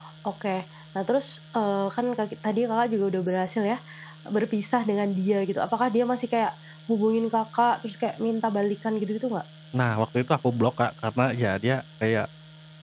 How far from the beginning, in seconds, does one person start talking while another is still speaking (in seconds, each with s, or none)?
none